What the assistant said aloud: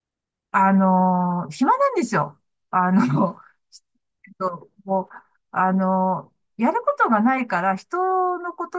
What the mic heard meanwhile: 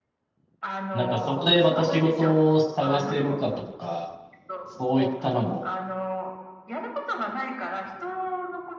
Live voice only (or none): なんかそこでまた仕事を探せるかとか、そういったのも